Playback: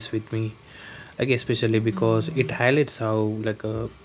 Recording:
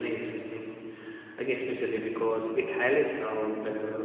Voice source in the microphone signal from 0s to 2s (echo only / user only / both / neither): echo only